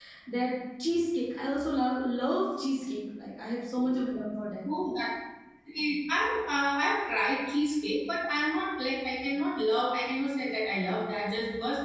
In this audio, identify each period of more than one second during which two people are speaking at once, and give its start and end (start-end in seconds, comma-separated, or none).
none